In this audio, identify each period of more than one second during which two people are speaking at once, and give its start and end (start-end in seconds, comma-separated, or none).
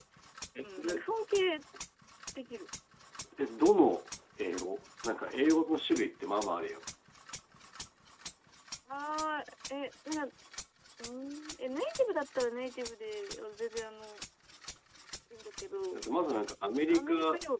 none